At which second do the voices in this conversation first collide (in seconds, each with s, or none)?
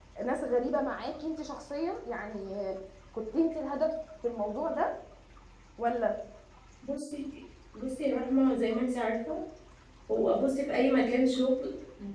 none